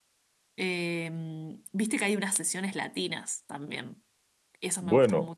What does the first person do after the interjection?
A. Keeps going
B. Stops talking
B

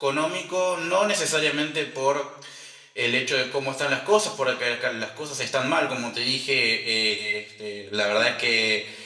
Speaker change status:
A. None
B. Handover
A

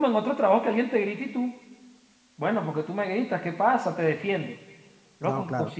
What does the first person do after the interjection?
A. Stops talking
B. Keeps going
B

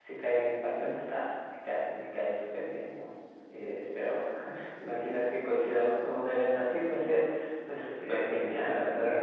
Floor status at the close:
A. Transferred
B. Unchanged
A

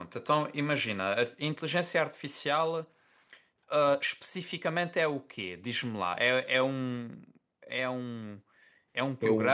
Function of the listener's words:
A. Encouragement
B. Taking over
A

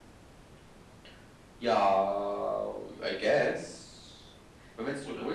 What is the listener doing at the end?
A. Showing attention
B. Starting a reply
A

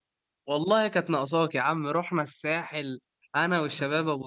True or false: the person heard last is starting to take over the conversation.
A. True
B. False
B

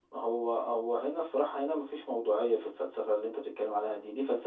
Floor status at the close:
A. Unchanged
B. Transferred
A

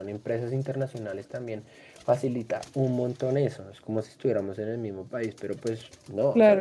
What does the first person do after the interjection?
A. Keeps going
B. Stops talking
B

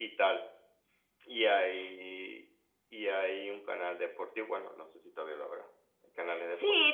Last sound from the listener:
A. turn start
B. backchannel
A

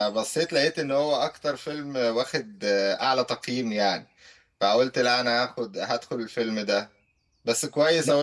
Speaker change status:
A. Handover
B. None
B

